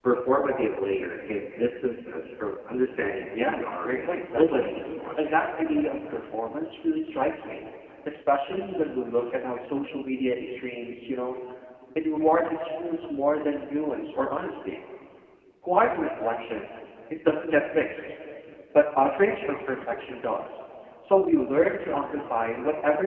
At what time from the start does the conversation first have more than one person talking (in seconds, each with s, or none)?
3.3 s